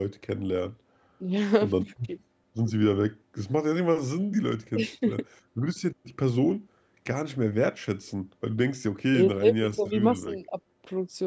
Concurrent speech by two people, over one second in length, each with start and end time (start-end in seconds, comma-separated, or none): 9.1-10.4